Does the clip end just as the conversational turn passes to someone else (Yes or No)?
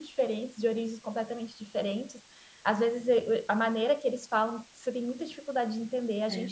No